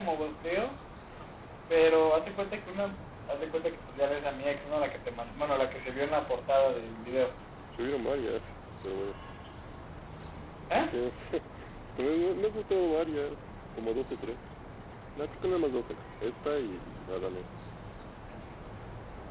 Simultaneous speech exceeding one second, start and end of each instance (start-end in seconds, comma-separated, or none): none